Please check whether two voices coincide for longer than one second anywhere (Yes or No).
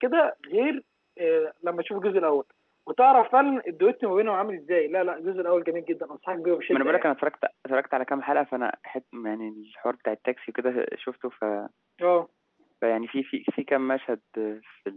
No